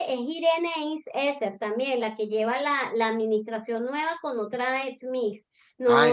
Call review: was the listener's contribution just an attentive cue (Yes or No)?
No